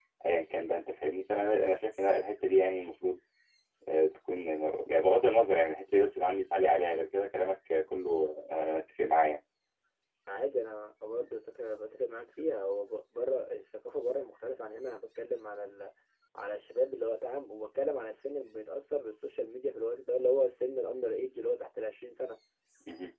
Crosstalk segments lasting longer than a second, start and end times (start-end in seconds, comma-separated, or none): none